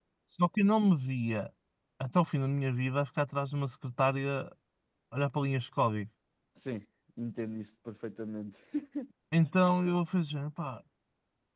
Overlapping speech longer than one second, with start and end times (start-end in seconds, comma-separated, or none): none